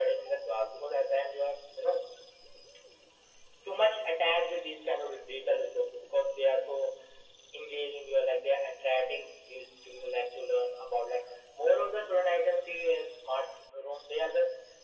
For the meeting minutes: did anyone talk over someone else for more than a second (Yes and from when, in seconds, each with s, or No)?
No